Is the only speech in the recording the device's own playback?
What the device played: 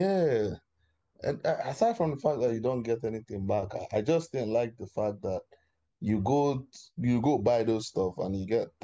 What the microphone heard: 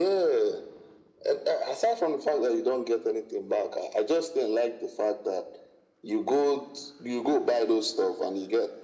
Yes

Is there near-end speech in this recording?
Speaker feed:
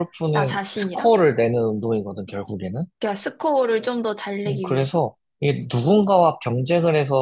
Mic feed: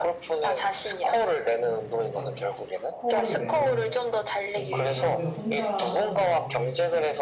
Yes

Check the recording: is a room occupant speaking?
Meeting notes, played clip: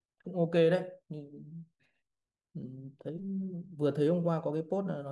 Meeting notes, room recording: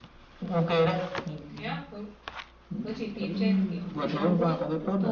Yes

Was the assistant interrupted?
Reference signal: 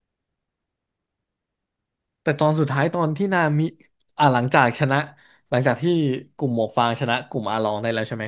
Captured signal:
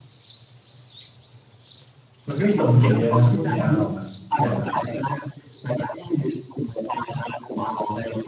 Yes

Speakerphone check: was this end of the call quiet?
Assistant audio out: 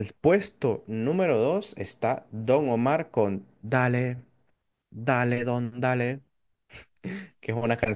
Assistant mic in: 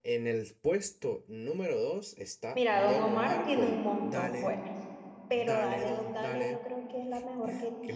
No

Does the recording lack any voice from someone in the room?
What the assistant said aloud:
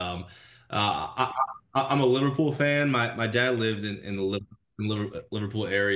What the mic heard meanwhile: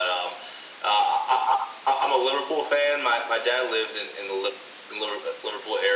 Yes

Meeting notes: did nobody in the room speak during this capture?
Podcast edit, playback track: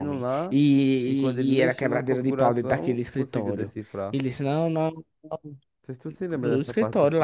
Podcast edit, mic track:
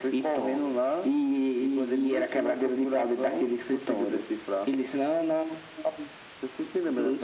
Yes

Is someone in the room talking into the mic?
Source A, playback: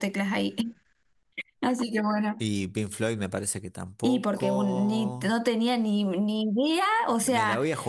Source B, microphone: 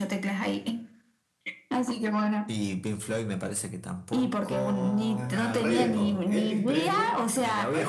Yes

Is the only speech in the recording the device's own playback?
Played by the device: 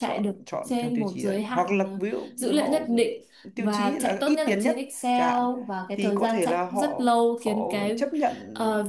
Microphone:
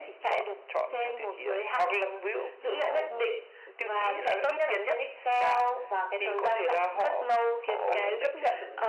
No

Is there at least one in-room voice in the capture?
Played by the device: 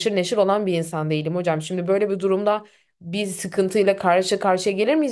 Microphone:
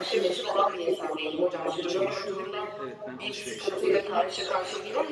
Yes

